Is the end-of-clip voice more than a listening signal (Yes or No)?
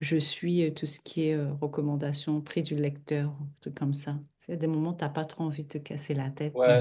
Yes